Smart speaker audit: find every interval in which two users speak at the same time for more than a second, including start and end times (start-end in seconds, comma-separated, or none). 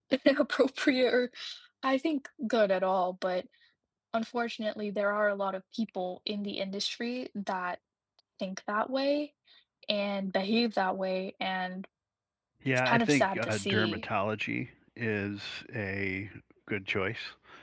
12.8-14.0